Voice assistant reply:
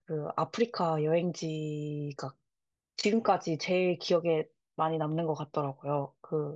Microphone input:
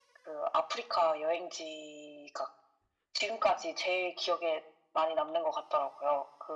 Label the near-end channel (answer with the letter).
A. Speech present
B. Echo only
B